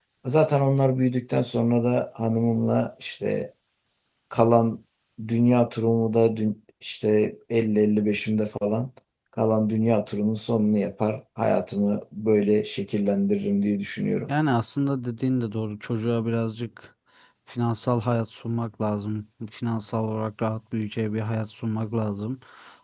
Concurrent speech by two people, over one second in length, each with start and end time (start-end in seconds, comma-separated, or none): none